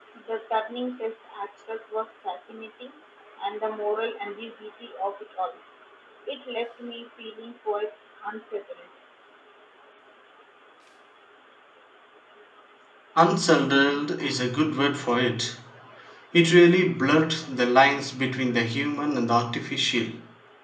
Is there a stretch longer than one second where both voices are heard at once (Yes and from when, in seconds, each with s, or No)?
No